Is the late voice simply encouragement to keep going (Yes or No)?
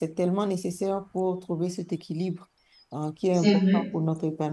Yes